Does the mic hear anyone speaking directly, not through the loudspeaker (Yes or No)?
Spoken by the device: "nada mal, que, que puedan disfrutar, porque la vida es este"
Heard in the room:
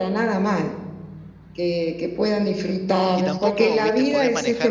Yes